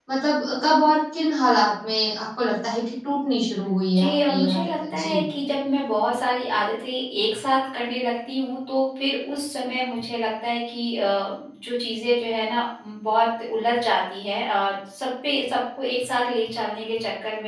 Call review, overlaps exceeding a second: present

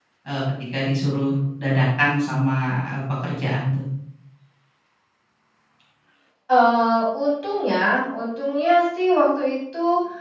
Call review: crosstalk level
none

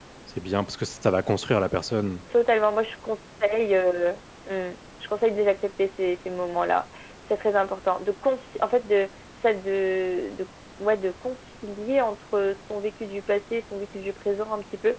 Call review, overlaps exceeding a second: none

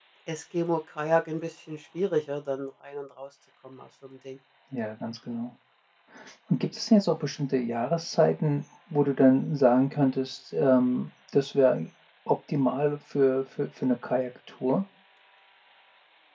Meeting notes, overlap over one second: none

